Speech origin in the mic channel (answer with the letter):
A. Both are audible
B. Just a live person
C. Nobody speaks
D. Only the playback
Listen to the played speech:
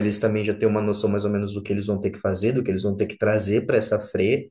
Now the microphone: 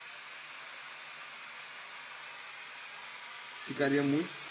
B